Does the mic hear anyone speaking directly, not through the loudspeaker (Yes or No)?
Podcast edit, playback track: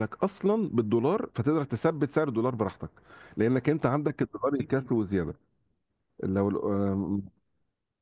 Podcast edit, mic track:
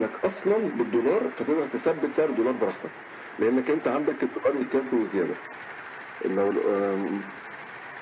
No